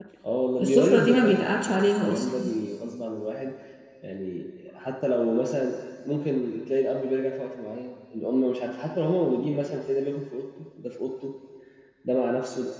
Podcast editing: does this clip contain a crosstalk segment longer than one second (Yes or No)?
Yes